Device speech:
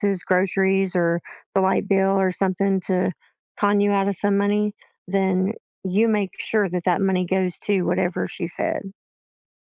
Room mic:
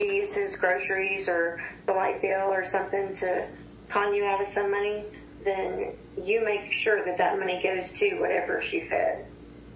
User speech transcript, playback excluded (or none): none